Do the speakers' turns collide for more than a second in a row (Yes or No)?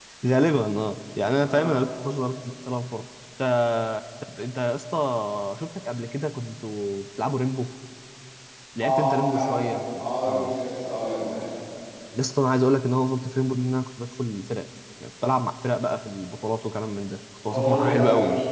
Yes